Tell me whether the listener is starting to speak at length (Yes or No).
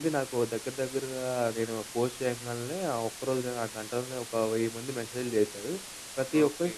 No